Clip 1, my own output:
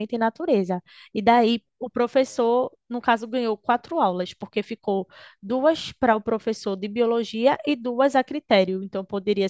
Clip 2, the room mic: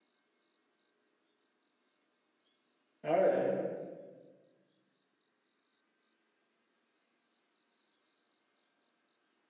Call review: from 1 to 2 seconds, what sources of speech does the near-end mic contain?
neither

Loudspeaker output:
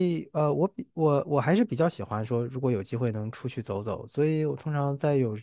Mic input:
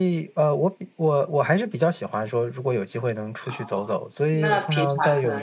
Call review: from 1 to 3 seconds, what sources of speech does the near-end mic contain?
echo only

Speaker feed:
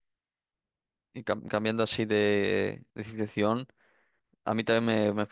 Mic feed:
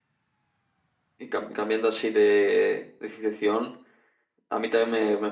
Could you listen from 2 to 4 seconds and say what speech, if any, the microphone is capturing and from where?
echo only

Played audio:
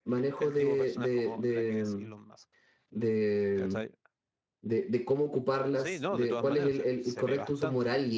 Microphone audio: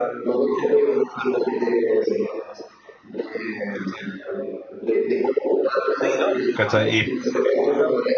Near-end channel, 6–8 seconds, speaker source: both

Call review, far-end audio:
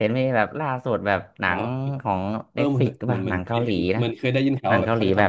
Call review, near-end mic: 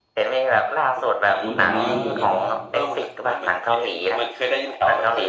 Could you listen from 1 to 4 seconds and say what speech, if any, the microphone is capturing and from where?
both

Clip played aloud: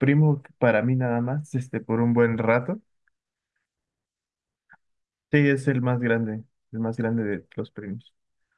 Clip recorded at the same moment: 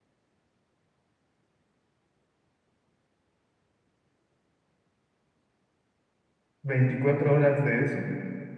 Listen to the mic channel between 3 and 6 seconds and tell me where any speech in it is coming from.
neither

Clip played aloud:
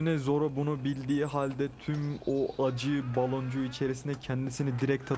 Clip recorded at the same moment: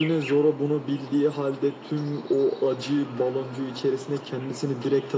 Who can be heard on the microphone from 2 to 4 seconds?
echo only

